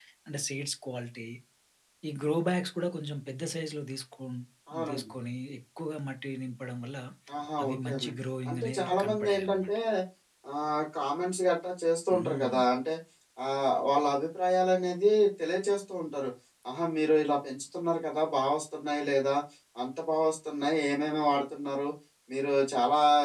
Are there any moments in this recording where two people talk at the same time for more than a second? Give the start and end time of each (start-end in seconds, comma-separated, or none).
8.5-9.8